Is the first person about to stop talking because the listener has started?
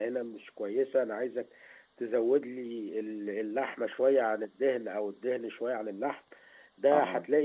No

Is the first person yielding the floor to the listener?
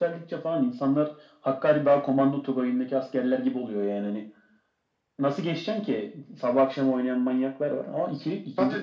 Yes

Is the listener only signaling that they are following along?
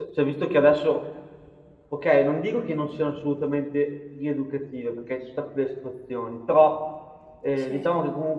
Yes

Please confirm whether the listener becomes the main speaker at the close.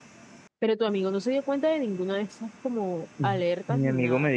Yes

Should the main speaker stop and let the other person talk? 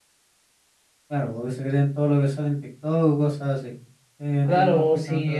Yes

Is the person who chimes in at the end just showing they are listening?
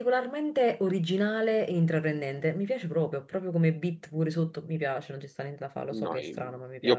No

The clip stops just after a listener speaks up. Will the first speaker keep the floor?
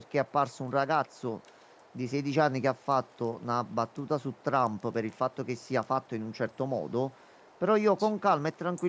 Yes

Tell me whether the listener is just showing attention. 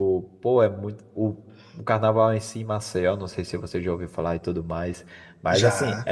Yes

